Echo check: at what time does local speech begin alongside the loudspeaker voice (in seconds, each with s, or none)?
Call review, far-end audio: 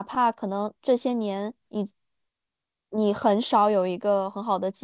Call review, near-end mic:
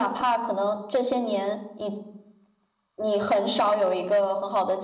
none